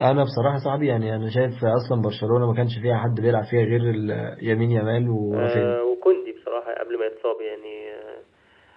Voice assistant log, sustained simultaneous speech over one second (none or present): none